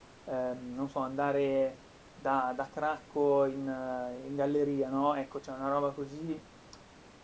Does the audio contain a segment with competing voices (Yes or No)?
No